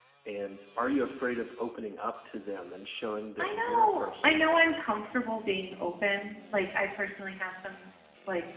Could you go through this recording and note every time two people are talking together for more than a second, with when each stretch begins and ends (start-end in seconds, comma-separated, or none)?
3.4-4.8